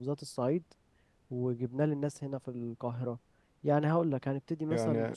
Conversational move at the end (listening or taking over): taking over